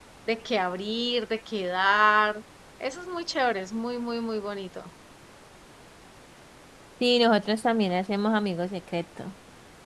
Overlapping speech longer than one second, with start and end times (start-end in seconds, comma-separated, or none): none